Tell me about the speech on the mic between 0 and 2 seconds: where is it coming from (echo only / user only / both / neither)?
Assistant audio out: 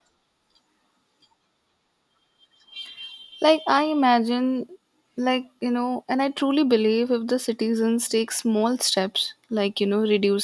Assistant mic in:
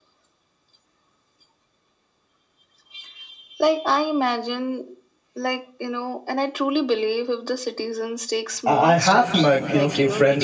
neither